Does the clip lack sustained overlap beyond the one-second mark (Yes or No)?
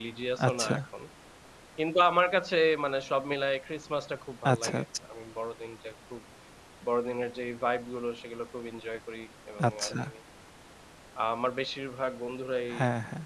Yes